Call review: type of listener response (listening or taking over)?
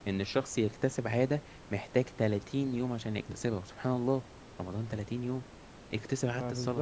listening